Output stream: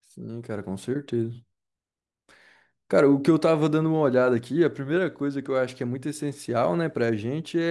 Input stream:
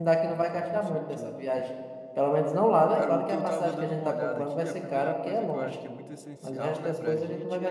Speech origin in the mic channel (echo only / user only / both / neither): both